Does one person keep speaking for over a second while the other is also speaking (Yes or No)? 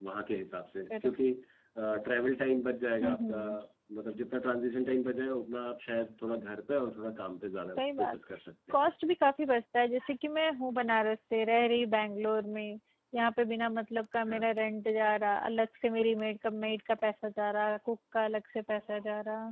No